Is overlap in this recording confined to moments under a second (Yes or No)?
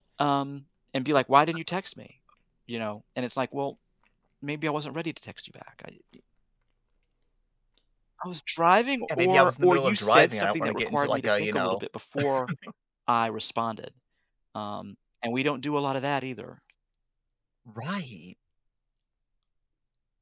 No